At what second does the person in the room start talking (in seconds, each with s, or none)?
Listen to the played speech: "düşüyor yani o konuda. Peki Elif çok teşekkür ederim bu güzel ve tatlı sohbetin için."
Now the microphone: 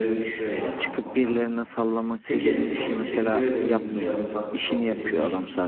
0.8 s